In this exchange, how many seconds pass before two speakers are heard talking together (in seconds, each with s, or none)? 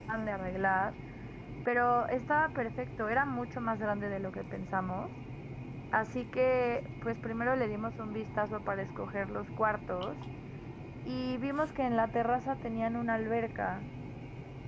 none